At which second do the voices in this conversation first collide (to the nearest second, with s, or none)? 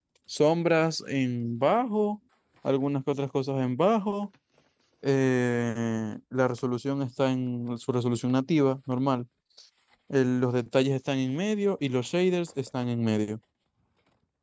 none